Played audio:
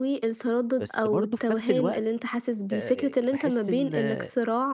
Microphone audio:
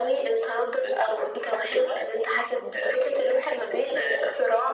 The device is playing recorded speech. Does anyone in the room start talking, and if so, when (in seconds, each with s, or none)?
none